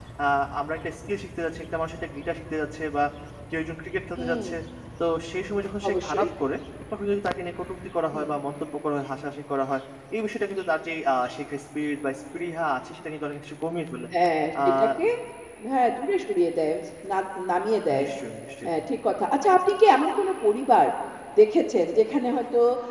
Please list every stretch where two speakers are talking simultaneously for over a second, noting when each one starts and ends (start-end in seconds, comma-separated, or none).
none